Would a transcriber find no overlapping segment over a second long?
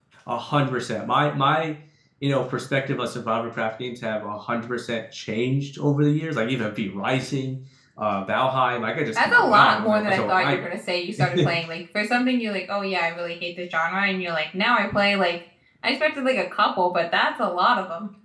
No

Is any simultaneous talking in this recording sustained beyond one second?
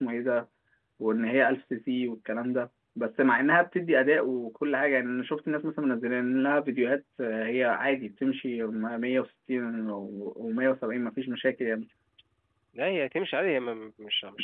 No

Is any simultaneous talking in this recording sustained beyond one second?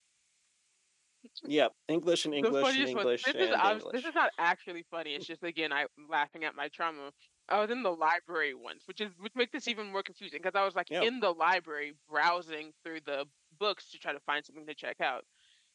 Yes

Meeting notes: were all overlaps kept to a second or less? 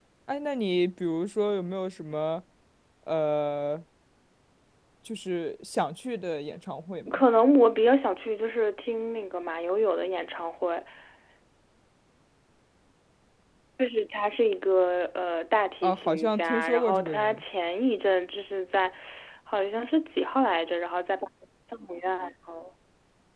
No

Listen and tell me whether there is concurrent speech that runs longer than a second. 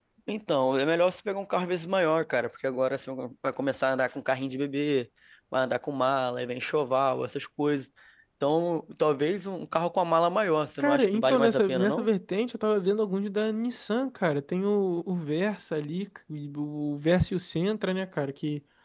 Yes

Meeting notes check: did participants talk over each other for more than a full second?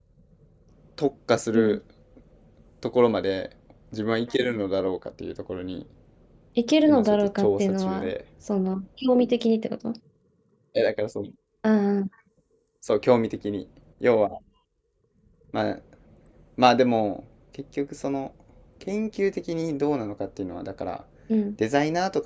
Yes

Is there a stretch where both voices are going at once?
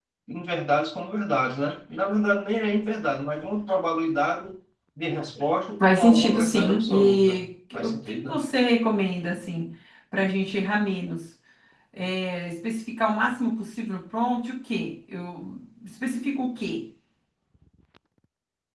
Yes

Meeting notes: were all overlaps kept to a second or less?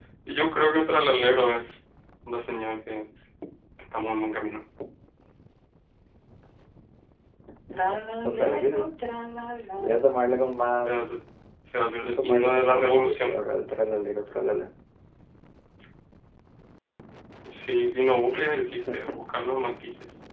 No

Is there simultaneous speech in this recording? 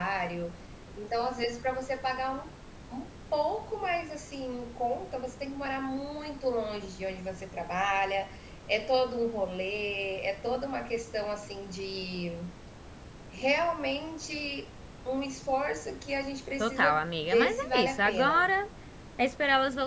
Yes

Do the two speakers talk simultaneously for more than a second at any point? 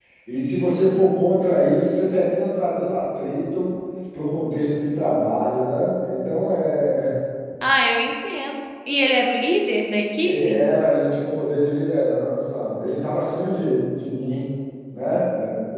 No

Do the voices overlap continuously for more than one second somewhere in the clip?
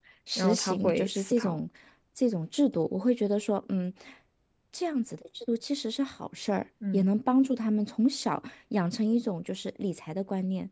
Yes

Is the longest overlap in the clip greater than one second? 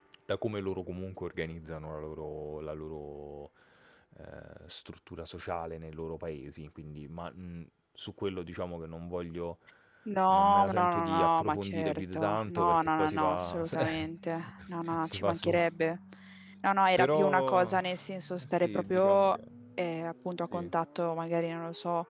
Yes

